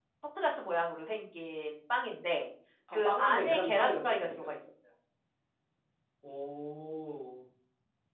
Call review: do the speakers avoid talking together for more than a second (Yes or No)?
No